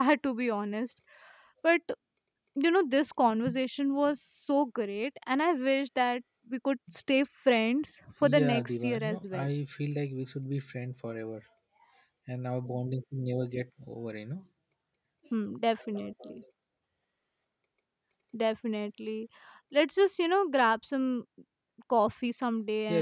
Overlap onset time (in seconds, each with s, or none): 8.2 s